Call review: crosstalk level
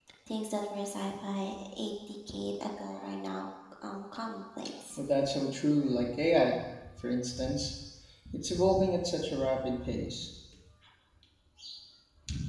none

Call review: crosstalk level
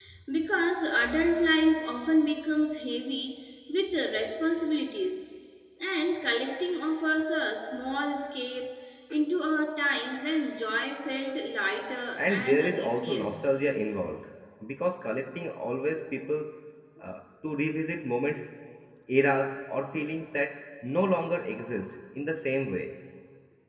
present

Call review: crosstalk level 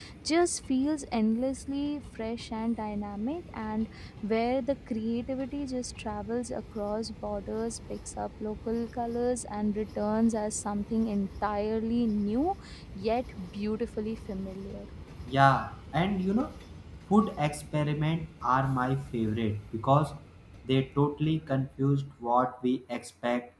none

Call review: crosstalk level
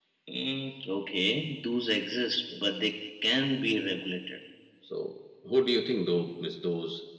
none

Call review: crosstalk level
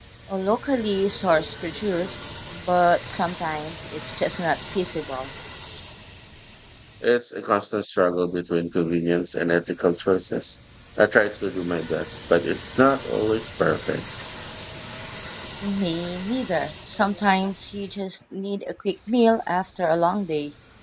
none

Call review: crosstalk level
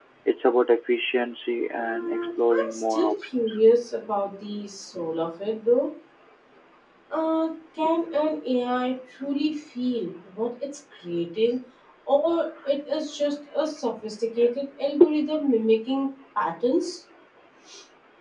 present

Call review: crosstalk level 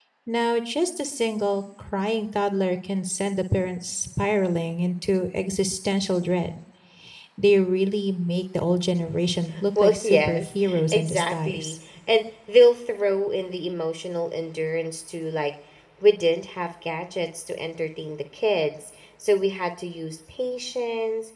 present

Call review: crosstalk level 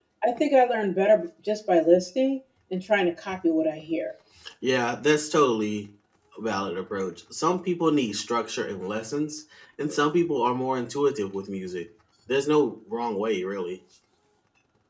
none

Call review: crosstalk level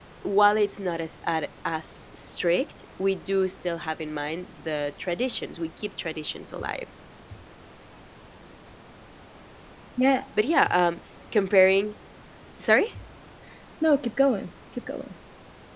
none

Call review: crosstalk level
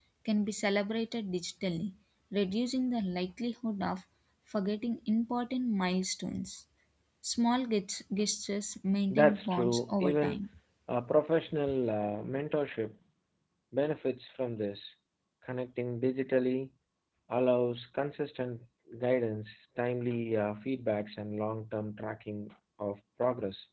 present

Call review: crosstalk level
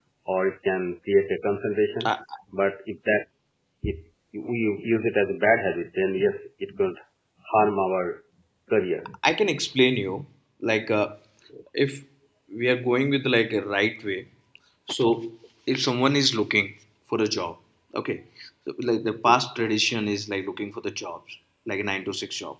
none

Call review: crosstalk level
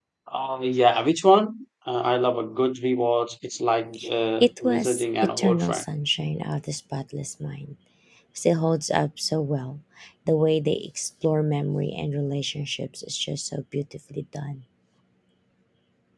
present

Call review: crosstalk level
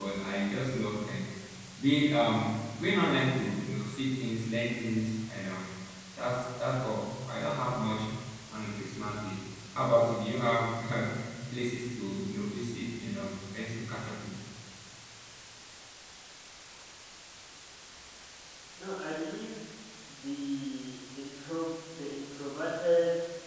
none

